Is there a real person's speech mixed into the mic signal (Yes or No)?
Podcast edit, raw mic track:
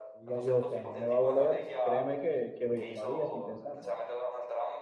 Yes